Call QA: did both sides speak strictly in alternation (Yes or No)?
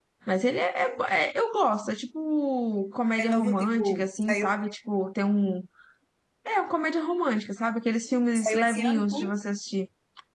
No